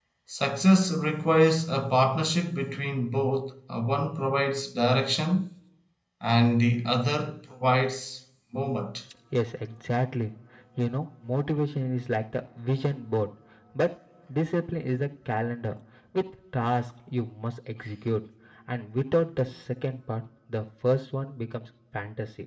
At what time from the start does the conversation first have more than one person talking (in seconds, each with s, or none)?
none